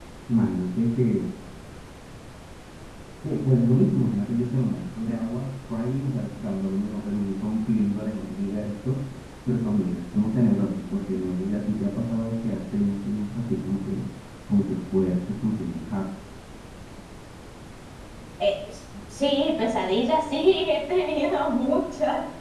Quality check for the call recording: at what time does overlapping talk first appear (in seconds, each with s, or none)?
none